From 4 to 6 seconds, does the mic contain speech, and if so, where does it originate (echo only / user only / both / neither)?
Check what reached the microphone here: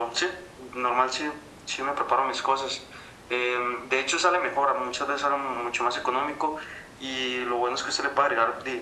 echo only